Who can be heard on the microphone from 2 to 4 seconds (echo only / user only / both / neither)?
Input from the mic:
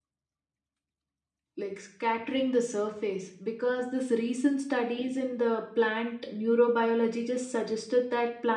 user only